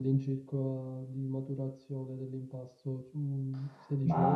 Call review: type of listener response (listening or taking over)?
taking over